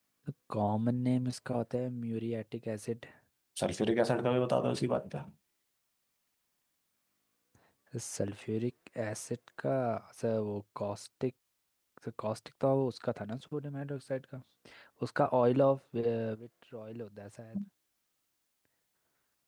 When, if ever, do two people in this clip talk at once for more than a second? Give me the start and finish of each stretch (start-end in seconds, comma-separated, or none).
none